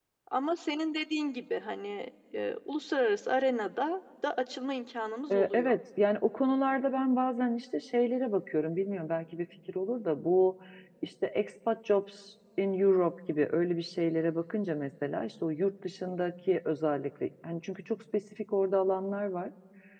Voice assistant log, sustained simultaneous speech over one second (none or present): none